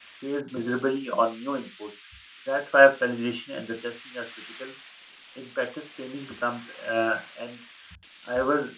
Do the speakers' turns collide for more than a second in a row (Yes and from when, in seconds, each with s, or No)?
No